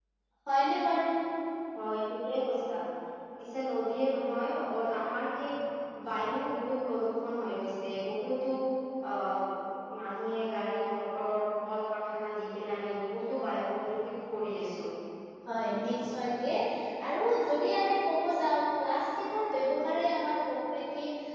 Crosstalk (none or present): none